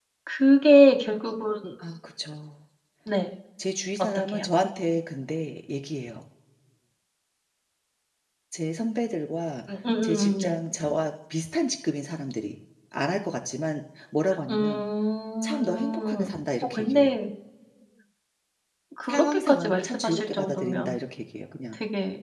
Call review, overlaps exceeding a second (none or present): present